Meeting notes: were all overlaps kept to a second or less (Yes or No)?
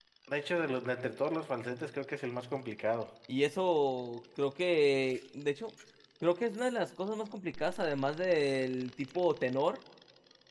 Yes